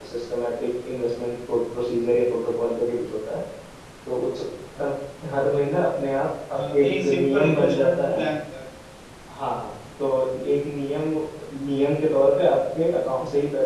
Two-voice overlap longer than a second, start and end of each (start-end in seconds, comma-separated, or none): 6.5-8.2